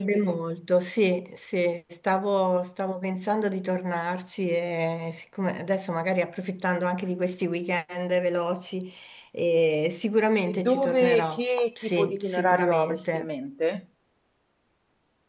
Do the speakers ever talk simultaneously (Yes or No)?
Yes